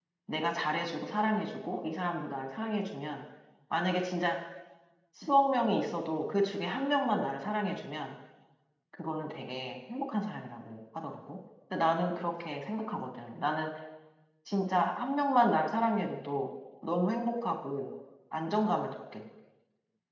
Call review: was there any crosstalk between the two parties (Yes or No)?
No